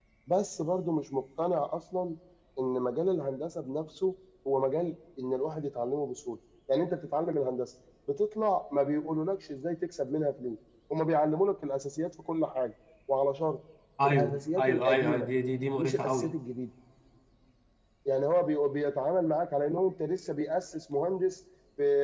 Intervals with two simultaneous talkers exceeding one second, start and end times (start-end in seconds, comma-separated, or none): 14.1-15.3